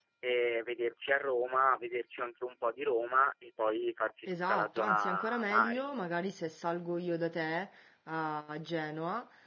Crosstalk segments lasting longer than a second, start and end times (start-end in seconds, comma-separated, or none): 4.3-5.8